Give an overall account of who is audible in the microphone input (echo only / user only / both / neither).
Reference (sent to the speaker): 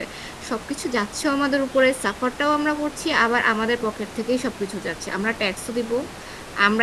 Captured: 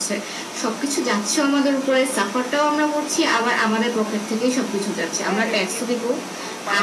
both